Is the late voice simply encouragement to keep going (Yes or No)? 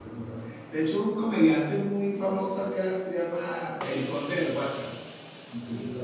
No